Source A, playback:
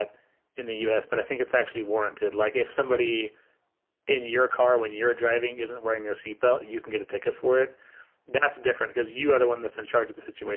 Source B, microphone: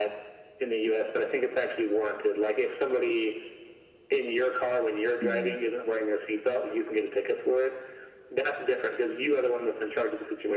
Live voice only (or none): mm,